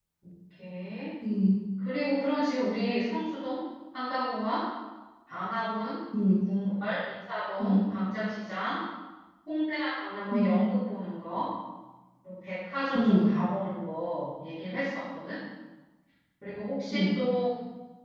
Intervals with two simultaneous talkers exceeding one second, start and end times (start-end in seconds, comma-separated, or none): none